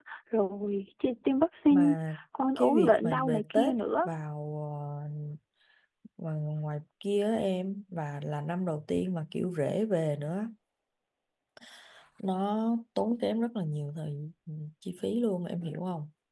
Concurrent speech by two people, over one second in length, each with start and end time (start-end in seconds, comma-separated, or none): 2.6-4.1